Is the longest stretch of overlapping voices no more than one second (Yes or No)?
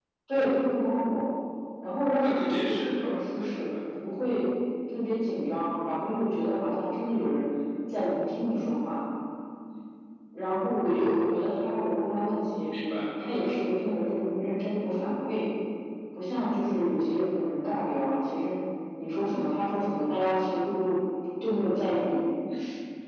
No